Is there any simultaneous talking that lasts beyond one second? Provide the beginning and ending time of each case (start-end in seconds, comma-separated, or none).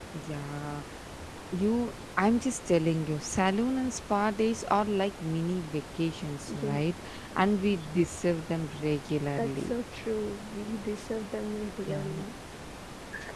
none